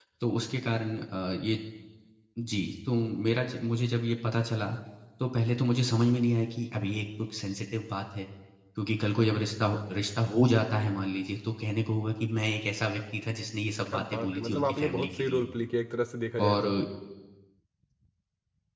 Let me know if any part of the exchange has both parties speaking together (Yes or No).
Yes